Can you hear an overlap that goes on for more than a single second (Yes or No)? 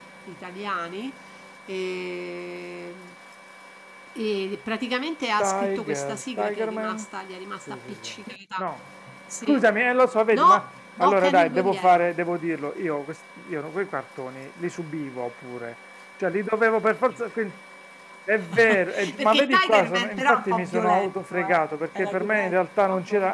Yes